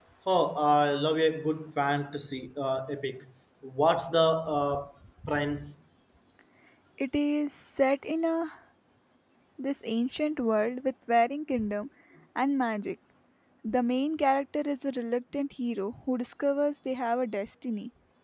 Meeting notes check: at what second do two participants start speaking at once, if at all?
none

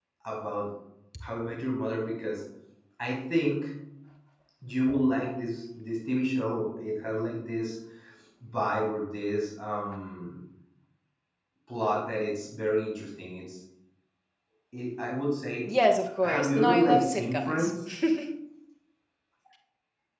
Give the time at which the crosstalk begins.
16.2 s

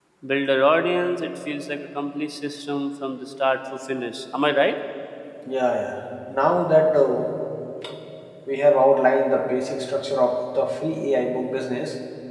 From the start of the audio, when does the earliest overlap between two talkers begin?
none

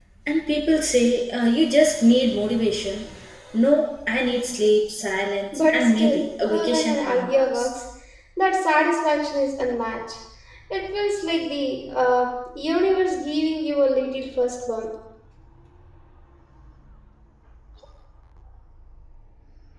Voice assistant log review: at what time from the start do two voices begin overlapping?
5.5 s

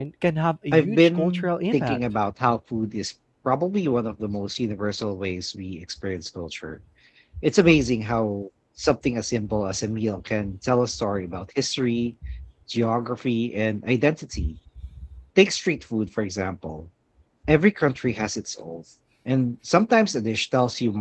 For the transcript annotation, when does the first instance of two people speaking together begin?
0.7 s

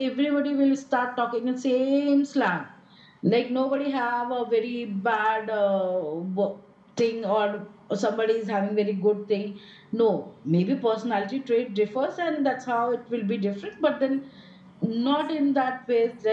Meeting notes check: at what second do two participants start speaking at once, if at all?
none

